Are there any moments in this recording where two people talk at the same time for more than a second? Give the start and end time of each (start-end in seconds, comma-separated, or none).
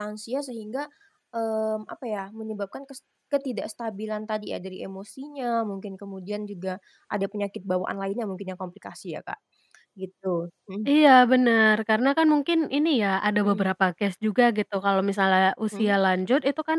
none